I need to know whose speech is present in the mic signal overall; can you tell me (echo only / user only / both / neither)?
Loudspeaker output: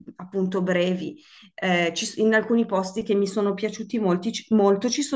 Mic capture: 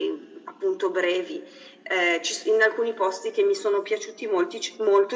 echo only